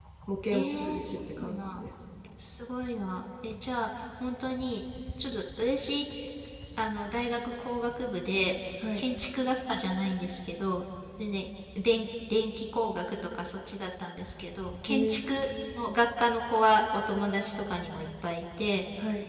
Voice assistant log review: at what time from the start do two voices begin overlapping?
1 s

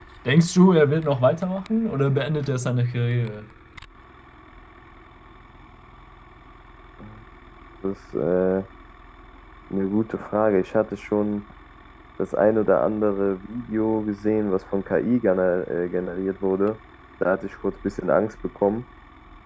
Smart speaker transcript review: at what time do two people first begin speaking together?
none

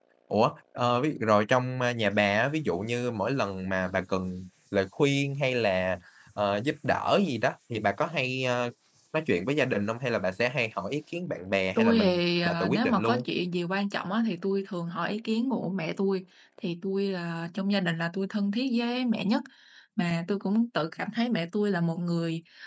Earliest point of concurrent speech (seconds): 12 s

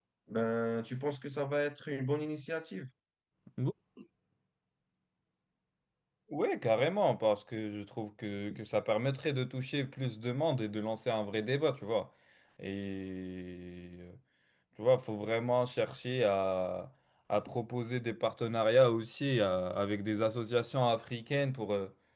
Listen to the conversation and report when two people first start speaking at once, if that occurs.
none

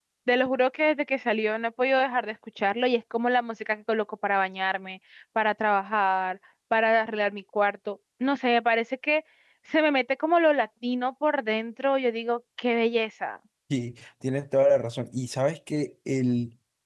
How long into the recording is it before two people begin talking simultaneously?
none

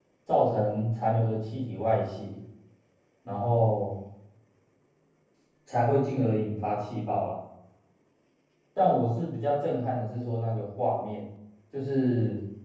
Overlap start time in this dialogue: none

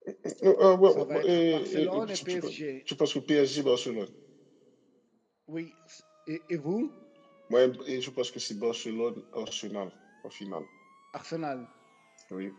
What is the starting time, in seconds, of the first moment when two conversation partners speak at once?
1 s

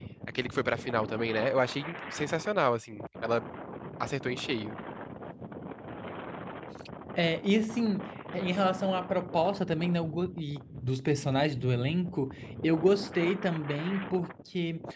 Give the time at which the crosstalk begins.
none

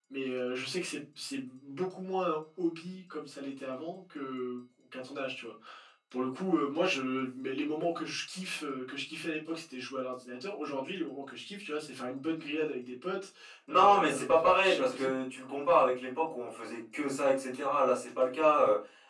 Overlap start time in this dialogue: 14 s

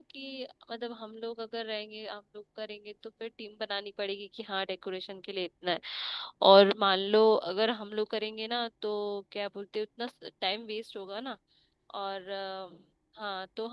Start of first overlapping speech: none

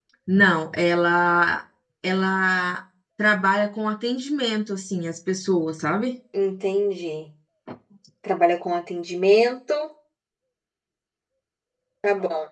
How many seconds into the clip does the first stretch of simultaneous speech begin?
none

